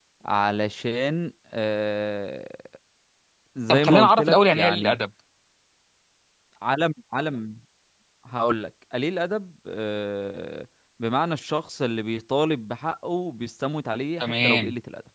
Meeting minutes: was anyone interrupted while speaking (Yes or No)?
Yes